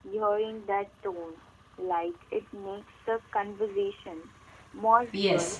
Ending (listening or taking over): taking over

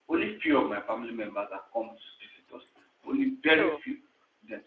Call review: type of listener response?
listening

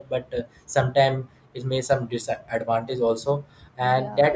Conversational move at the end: listening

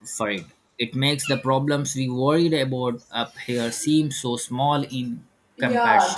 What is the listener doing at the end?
taking over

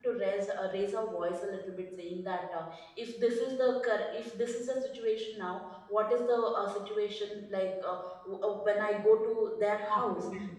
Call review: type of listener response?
listening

